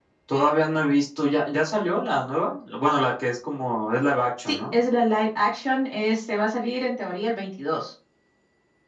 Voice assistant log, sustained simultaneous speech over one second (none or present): none